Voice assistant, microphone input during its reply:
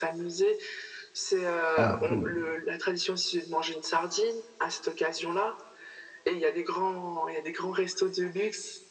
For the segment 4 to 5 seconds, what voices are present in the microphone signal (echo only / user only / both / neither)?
echo only